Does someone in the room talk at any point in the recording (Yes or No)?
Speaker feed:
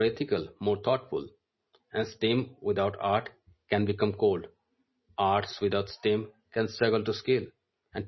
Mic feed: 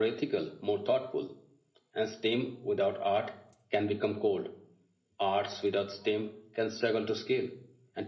No